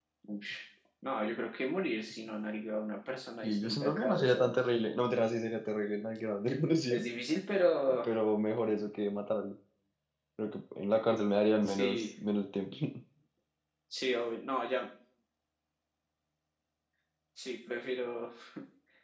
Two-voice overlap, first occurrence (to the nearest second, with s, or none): 3 s